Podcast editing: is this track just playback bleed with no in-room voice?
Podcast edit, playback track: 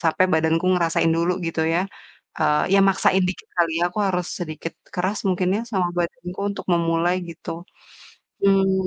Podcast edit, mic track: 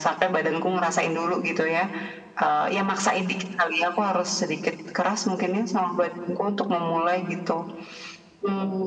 Yes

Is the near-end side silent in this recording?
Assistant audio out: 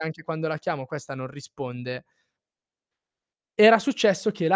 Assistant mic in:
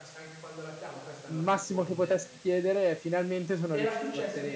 No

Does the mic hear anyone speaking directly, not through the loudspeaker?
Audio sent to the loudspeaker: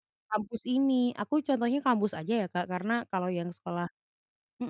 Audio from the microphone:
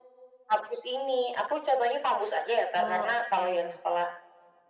Yes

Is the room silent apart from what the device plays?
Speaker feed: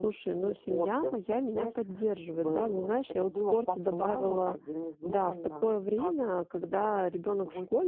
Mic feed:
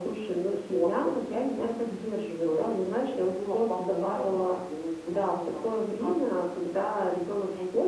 Yes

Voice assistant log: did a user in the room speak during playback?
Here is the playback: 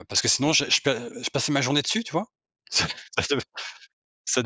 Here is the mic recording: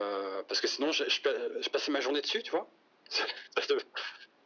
No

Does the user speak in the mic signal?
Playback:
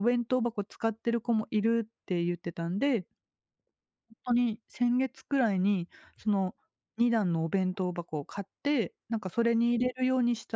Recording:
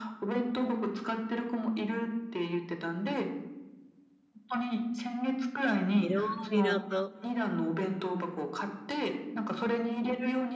Yes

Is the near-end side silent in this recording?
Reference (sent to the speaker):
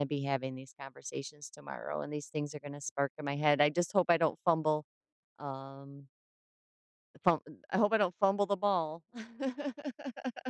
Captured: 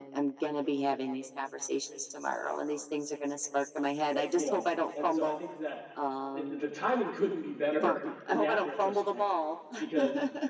No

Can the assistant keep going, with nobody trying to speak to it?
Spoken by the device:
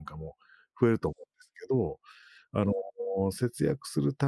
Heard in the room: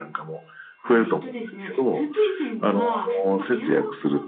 No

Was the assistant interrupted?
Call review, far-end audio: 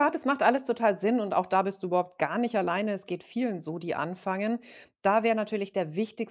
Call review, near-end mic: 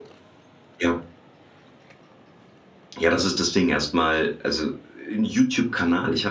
Yes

